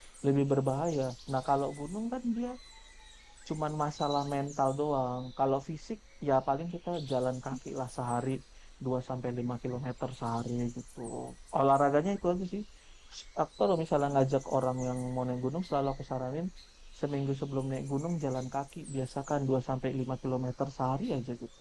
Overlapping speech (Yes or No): No